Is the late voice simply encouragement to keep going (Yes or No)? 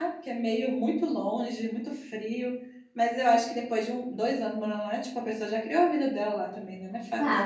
No